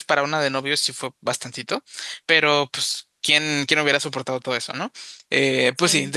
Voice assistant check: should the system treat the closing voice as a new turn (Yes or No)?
No